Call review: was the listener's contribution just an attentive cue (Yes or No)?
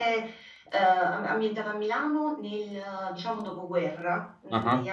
Yes